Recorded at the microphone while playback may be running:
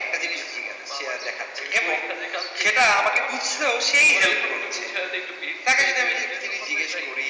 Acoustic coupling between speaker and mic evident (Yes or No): Yes